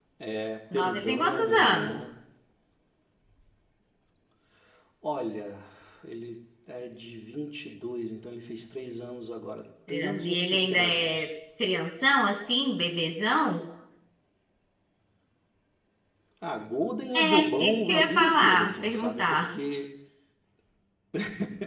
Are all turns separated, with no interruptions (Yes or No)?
No